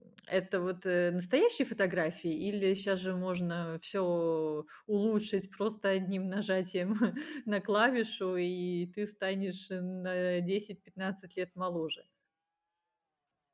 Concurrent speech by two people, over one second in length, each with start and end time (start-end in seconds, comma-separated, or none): none